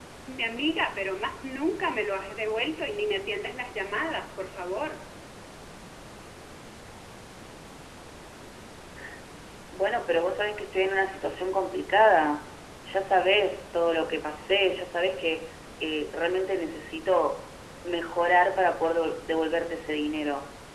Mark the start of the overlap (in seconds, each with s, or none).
none